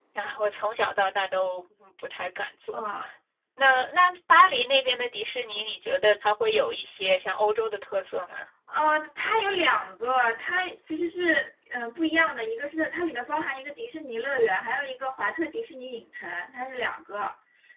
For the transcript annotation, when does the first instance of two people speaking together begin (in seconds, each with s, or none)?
none